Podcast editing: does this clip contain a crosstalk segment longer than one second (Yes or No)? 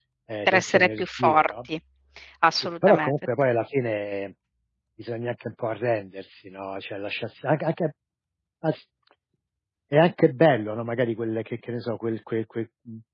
Yes